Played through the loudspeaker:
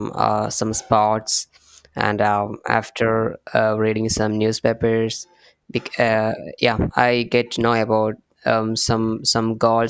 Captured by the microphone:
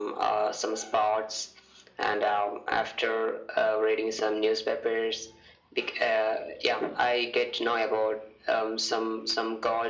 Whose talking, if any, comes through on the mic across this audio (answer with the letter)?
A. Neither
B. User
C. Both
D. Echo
D